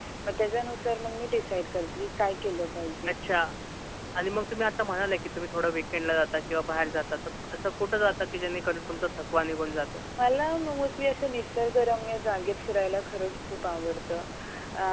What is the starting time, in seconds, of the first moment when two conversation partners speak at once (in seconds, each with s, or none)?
none